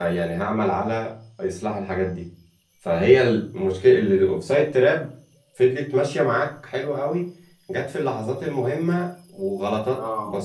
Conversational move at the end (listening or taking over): listening